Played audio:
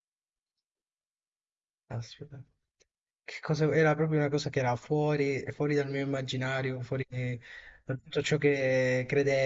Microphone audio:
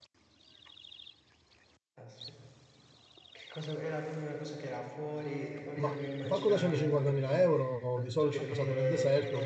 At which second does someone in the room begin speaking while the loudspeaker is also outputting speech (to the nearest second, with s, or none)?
6 s